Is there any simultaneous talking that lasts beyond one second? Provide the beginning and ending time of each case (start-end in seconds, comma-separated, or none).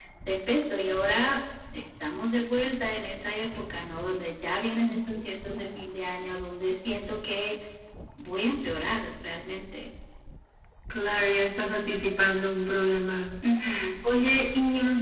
none